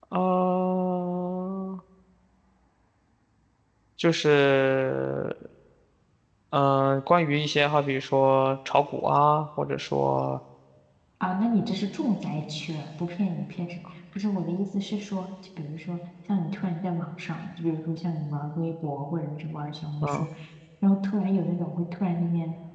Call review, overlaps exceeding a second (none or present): none